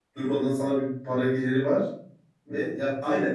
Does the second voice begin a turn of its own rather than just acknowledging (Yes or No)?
Yes